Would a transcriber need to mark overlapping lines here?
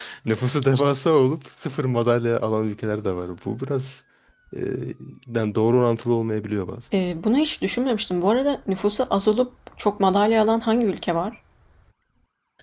No

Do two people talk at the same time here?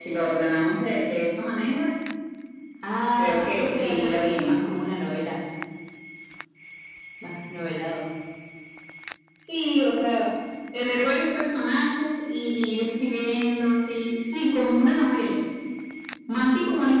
Yes, from 3.2 s

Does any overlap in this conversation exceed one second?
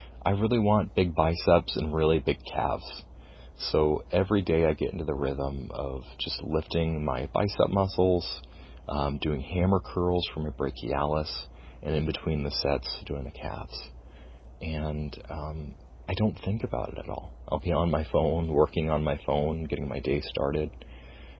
No

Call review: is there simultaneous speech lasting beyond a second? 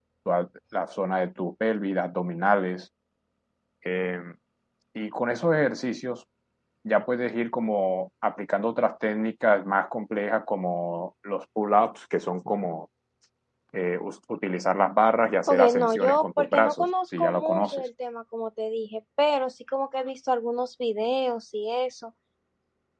Yes, from 15.5 s

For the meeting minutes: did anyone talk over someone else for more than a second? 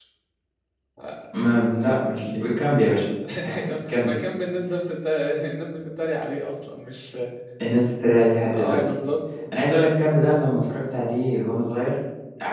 No

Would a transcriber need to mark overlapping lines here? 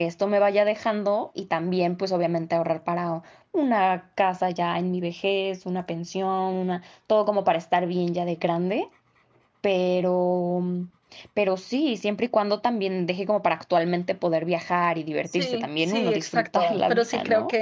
Yes, from 15.3 s

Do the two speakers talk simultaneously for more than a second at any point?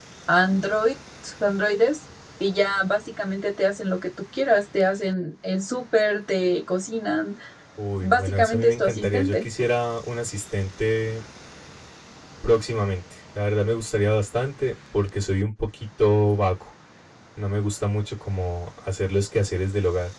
Yes, from 8.0 s

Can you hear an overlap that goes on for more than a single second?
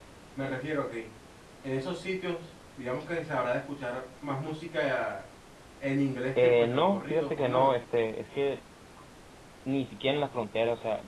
Yes, from 6.4 s

